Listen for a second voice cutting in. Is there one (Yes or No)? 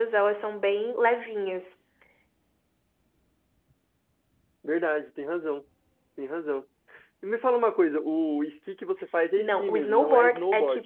Yes